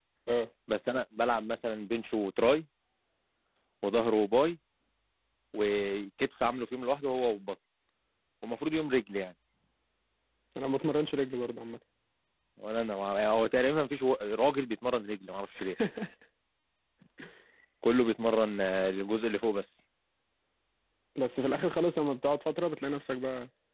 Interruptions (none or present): none